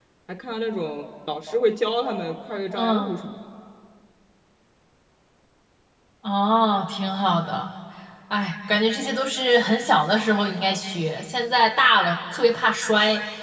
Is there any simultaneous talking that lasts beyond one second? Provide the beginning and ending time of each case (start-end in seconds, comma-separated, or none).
none